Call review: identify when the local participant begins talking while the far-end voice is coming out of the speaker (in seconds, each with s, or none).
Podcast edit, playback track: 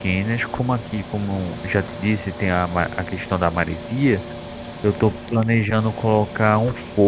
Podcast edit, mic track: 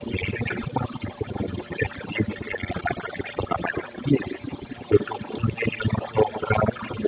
none